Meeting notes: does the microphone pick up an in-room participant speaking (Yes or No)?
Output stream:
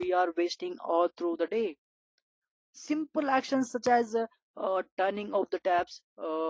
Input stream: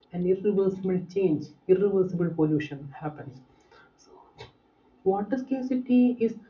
Yes